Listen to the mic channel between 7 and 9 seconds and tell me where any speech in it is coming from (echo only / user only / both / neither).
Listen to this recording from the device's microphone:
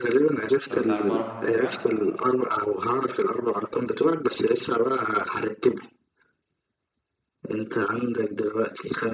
echo only